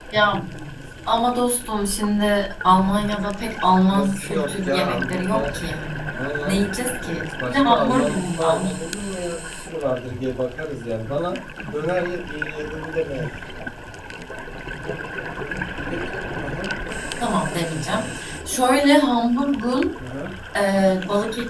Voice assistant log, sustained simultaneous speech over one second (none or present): present